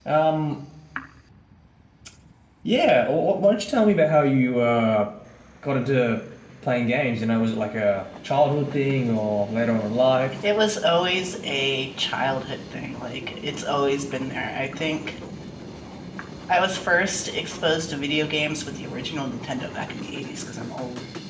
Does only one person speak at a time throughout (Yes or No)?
Yes